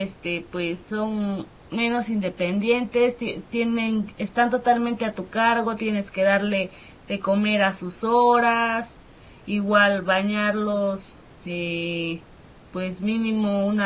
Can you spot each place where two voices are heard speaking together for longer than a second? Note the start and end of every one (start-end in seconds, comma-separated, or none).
none